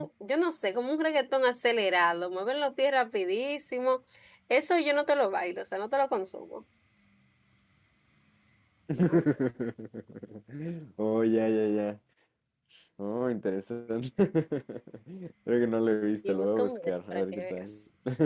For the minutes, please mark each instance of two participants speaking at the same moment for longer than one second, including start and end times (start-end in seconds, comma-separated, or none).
16.3-17.6